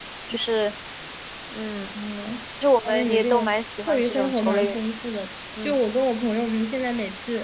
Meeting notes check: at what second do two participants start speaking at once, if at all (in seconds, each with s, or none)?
2.8 s